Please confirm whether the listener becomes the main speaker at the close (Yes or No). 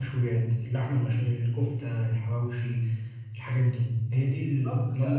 Yes